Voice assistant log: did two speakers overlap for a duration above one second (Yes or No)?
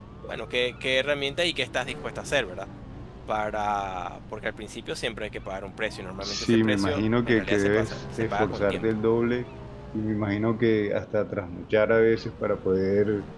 Yes